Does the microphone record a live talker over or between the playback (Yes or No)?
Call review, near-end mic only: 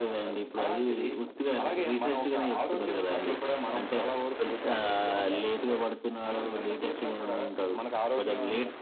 No